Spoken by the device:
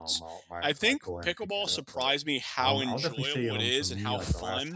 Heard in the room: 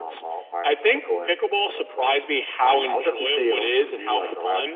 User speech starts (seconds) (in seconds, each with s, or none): none